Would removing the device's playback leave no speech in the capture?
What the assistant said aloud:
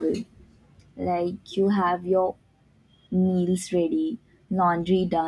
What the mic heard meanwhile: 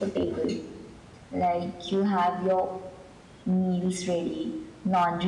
Yes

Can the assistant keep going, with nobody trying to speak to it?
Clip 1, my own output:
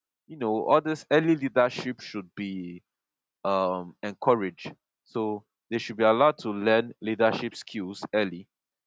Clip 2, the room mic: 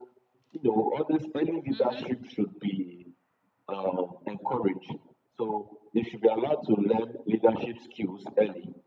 No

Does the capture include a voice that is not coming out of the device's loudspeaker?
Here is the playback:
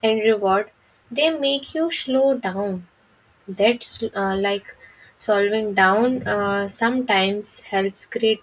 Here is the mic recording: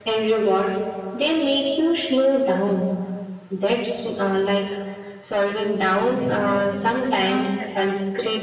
Yes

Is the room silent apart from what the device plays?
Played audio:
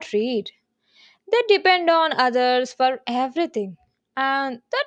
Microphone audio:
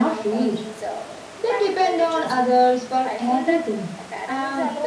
No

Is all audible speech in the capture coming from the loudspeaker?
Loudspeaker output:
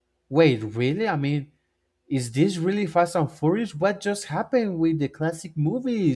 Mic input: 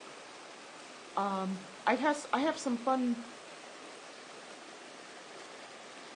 No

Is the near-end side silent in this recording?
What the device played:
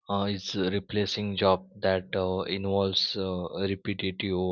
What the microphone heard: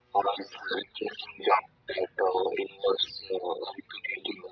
Yes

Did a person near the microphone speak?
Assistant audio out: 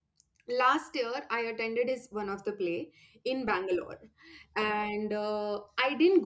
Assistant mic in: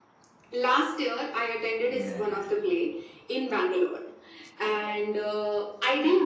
Yes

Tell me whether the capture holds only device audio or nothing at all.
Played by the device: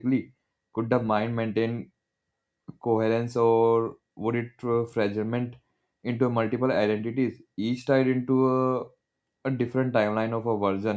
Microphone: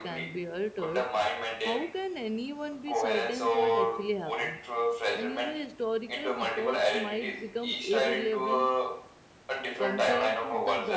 No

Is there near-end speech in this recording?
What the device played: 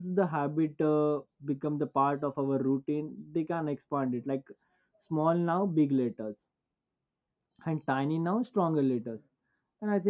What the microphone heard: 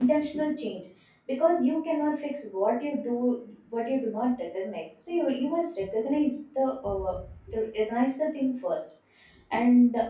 Yes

